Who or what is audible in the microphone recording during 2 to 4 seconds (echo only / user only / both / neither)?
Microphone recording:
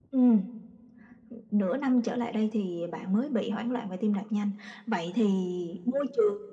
echo only